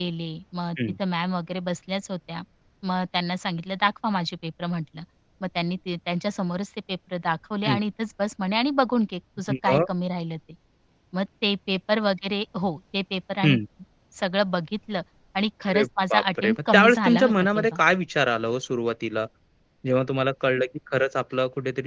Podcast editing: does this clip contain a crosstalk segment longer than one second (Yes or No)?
Yes